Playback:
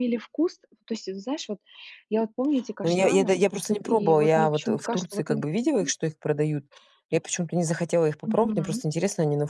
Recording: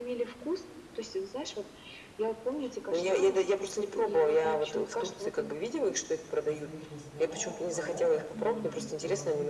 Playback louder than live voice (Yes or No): Yes